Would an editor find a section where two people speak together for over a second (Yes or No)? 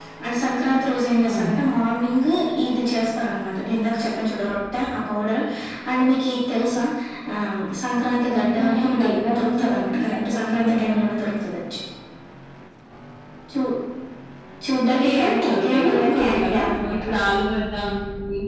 Yes